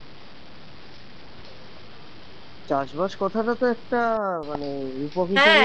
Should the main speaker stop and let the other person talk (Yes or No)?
Yes